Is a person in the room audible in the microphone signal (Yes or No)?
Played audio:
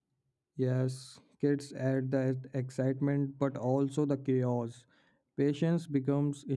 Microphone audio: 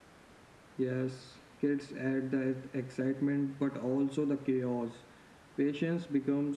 No